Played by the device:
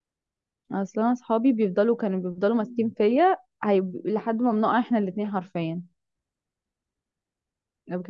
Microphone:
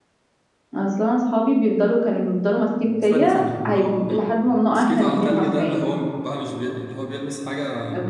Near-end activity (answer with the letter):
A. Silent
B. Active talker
B